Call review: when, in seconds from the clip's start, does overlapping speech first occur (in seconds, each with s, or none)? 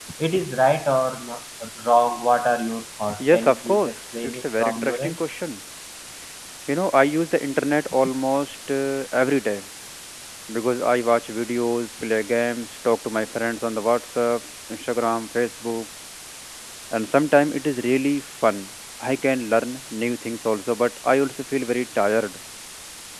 3.2 s